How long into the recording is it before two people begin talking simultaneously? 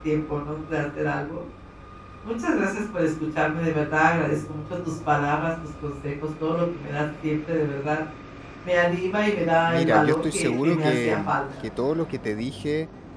9.7 s

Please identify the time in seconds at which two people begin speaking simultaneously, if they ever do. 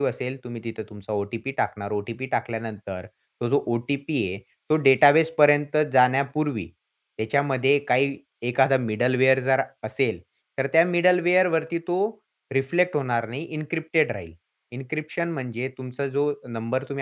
none

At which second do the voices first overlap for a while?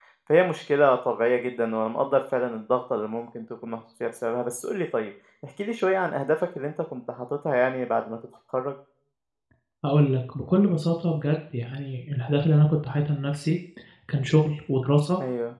none

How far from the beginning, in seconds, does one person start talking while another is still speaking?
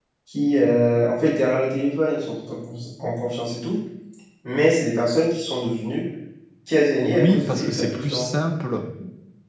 7.0 s

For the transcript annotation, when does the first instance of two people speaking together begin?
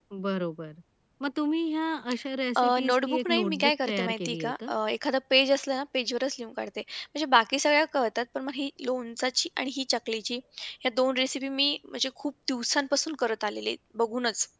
2.6 s

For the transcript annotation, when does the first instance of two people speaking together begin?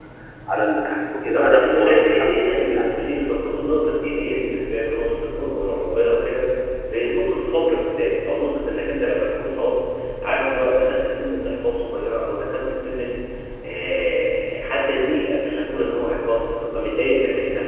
1.4 s

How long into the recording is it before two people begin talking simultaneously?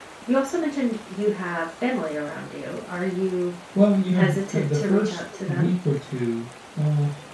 4.1 s

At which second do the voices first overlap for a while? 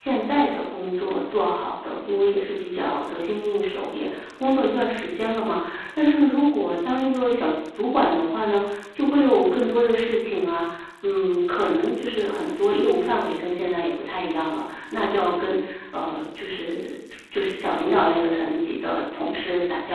none

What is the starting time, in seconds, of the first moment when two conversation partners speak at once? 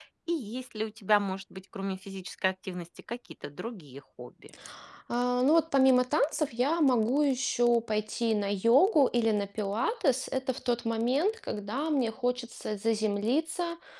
none

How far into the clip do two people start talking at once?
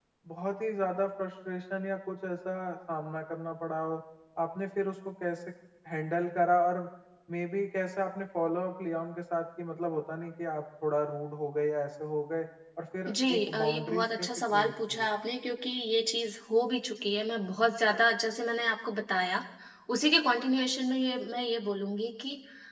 13.1 s

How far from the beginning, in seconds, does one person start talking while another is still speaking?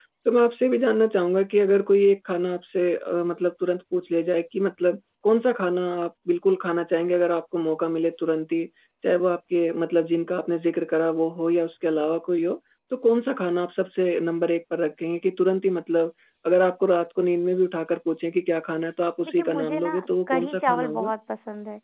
19.2 s

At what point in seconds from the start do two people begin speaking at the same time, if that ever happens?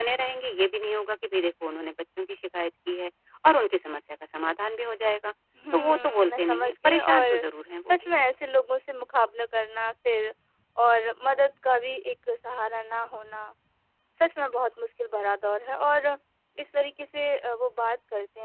5.7 s

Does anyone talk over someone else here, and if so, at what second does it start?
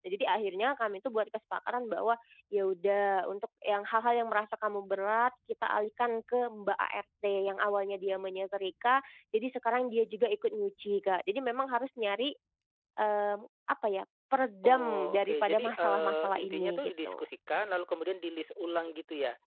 14.6 s

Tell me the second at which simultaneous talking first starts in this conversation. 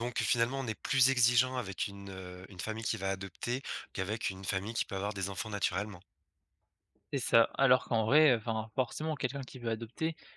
none

